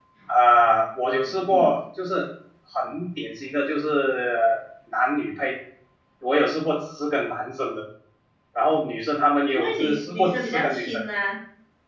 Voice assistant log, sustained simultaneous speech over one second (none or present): present